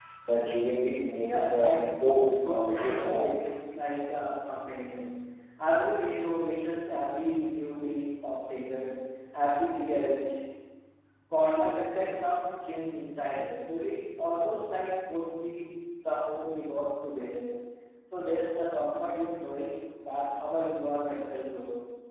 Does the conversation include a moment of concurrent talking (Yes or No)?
Yes